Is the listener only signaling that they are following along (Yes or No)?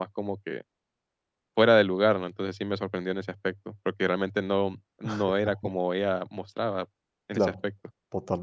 No